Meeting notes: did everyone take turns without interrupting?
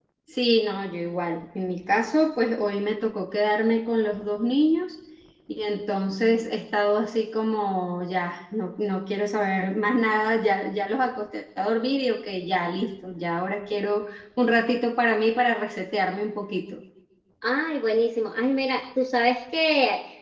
Yes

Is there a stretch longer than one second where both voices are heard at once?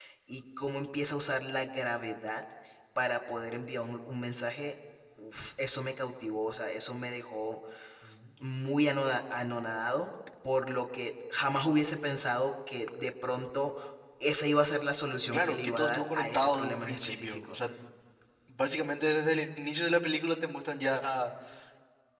Yes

